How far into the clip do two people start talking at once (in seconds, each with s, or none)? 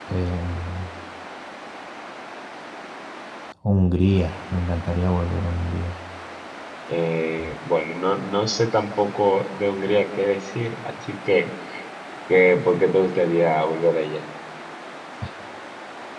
none